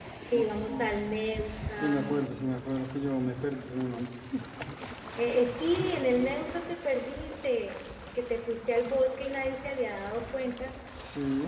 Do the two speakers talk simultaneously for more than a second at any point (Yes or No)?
No